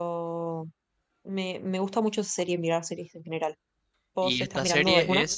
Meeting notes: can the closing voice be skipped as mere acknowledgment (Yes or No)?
No